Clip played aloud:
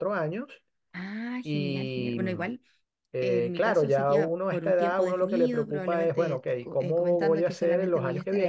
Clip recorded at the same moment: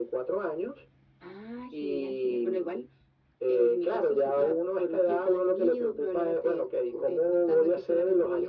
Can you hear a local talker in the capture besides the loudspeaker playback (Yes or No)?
No